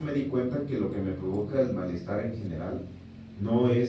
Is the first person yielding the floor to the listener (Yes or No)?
No